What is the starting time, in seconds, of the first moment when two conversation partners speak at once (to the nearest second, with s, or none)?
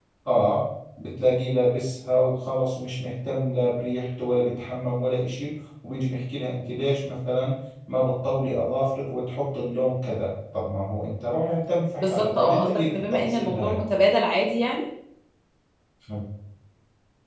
12 s